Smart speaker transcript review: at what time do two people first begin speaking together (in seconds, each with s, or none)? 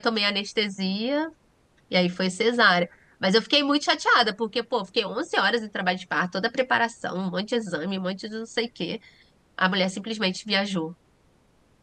none